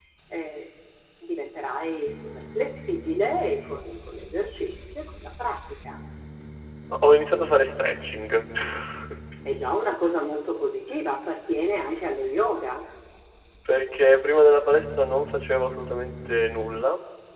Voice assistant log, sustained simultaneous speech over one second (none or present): none